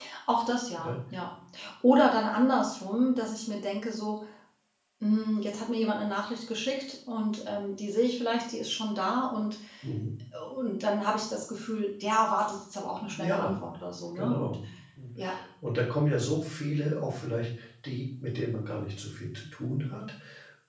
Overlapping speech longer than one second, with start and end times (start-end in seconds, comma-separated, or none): none